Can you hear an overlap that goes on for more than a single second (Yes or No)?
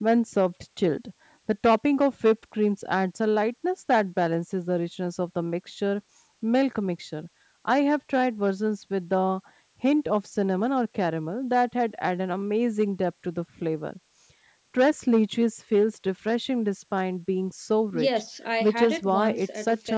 Yes